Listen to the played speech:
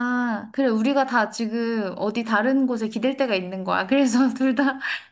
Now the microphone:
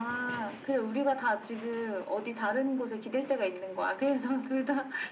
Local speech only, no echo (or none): none